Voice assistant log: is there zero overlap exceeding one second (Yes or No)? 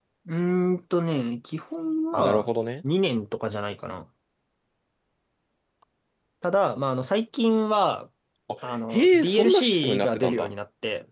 No